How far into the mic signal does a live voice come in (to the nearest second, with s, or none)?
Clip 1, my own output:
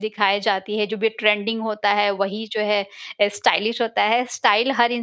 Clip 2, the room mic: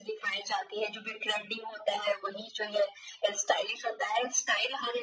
none